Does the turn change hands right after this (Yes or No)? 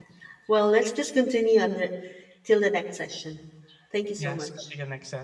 Yes